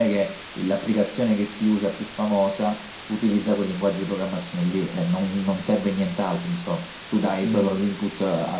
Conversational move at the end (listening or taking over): listening